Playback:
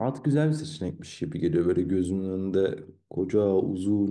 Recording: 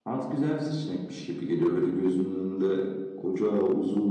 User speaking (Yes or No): No